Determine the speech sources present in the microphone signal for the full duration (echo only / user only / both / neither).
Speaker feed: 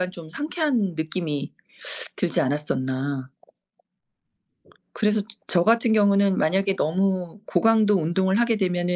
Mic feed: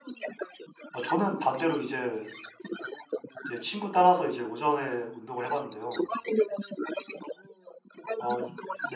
both